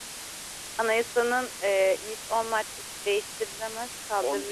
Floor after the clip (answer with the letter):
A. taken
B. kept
A